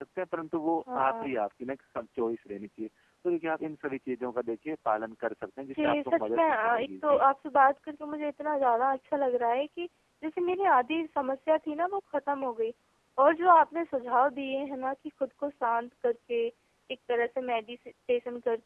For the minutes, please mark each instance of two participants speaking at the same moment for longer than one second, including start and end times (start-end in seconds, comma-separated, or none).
5.7-7.2